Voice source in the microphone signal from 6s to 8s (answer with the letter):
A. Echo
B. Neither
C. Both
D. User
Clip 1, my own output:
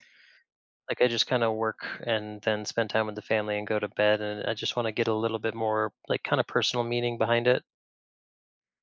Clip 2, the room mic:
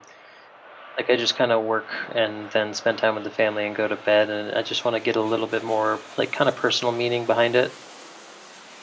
A